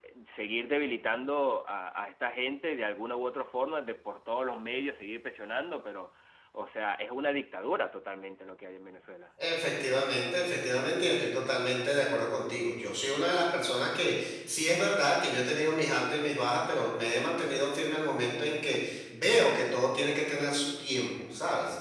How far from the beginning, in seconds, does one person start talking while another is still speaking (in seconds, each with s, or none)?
none